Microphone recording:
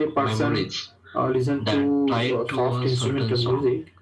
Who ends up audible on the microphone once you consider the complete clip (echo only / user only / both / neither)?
echo only